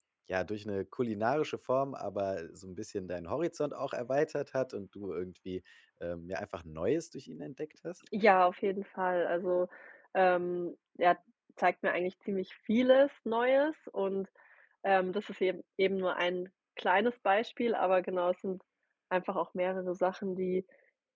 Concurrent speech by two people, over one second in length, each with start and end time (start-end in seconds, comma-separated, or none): none